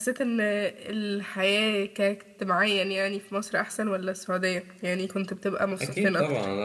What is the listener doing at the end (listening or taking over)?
taking over